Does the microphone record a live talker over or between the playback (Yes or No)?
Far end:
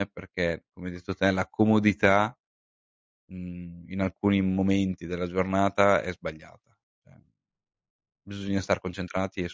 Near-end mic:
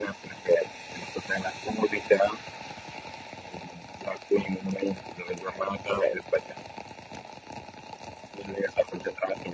No